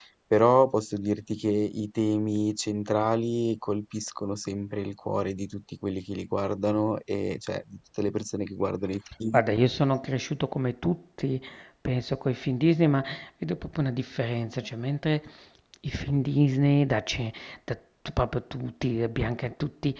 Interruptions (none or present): none